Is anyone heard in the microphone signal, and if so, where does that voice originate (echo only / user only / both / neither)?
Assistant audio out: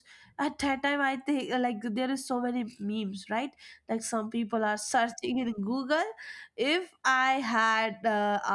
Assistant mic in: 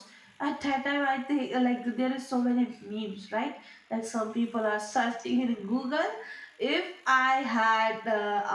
echo only